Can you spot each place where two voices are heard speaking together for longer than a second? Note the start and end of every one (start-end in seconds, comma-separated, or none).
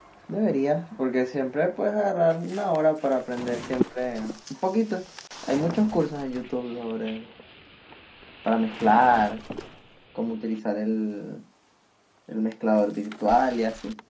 none